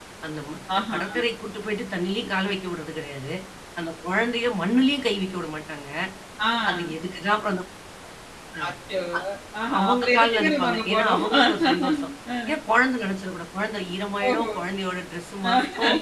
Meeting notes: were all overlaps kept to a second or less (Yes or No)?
No